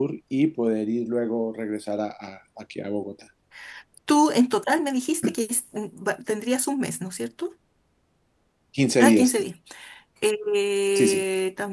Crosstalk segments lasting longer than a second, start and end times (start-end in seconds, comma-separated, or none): none